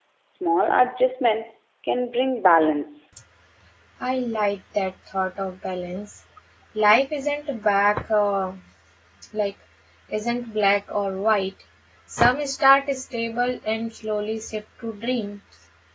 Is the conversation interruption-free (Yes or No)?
Yes